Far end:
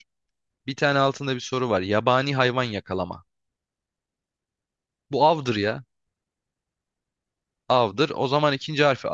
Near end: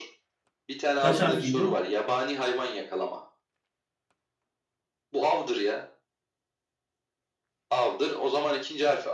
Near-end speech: present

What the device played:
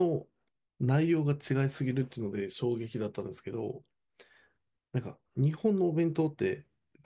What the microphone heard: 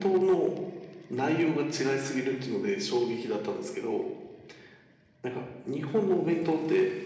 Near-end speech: none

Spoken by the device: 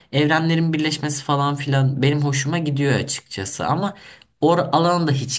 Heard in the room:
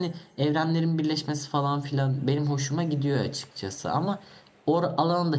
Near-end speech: none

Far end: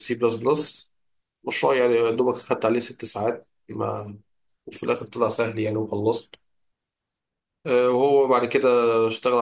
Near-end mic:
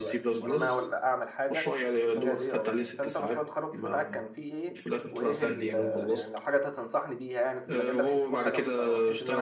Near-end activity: present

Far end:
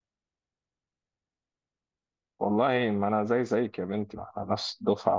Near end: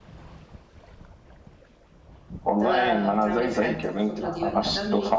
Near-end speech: present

